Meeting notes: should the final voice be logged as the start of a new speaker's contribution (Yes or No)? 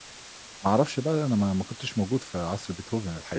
Yes